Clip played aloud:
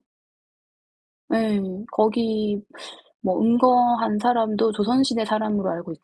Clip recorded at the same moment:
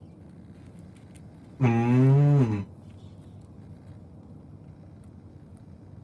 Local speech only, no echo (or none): 음.